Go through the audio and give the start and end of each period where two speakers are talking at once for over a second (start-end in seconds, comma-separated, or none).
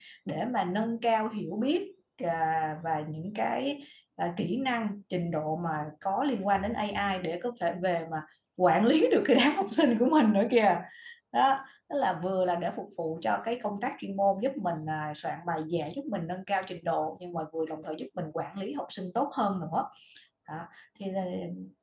none